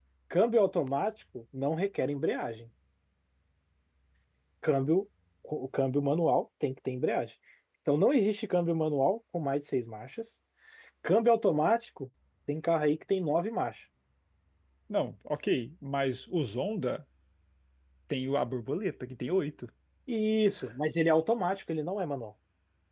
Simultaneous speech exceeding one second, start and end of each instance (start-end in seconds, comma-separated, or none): none